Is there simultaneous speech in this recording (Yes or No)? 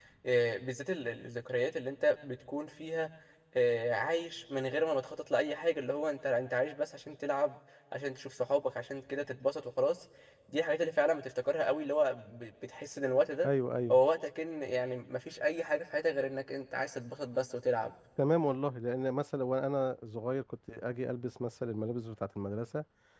No